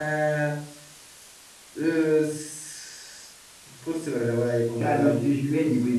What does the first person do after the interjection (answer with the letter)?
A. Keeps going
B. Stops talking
B